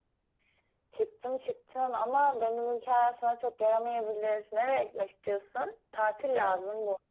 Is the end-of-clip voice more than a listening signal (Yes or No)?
No